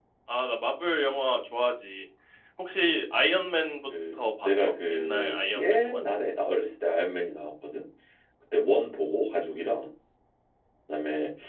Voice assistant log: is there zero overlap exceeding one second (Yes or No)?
No